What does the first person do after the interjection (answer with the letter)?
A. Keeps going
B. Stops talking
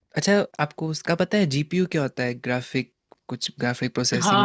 B